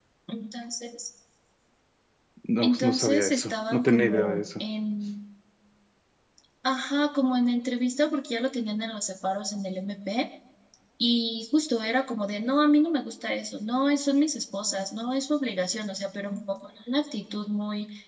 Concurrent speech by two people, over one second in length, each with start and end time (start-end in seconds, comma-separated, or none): 2.6-4.6